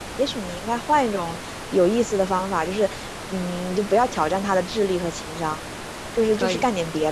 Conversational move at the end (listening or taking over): listening